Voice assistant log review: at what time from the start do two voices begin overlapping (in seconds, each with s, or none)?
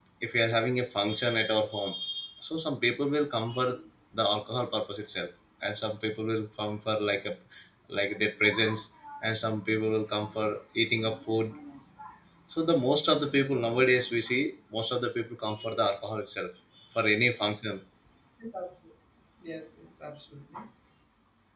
none